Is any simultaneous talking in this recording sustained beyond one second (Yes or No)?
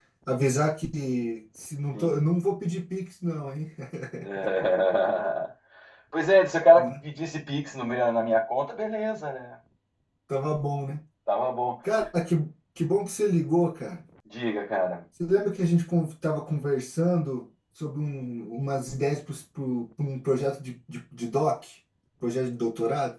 No